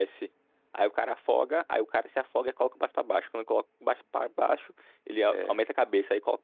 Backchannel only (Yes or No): Yes